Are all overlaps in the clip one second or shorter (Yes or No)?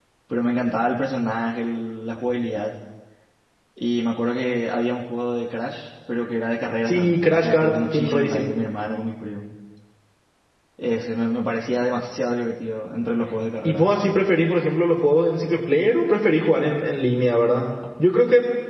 No